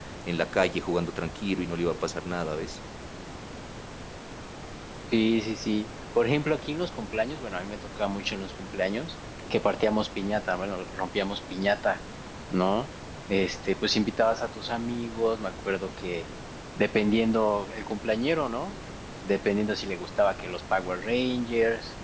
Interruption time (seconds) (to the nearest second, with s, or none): none